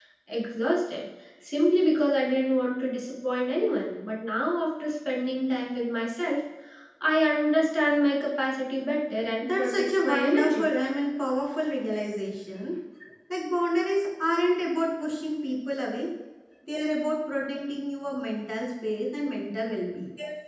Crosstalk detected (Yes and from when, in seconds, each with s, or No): Yes, from 9.4 s